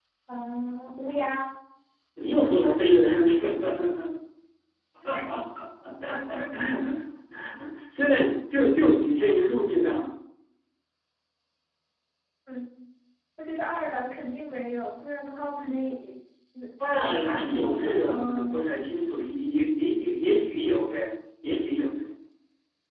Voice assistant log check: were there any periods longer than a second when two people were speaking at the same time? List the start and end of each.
17.1-18.6

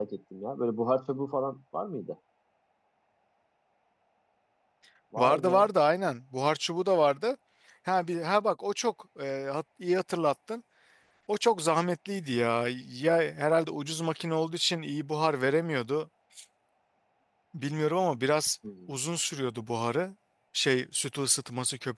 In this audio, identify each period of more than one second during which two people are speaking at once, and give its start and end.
none

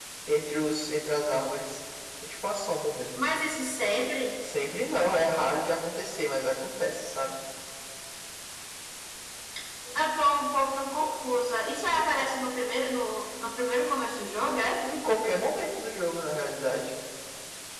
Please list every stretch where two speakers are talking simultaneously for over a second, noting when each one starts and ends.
none

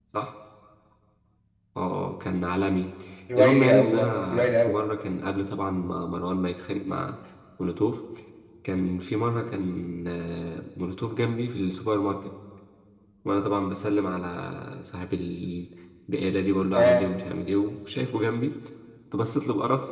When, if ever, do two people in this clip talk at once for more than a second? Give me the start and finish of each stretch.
3.4-4.8

